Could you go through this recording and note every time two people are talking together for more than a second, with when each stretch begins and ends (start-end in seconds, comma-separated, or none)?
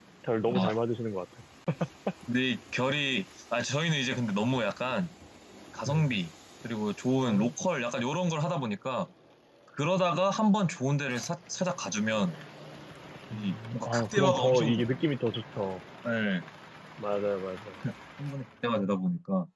13.3-14.8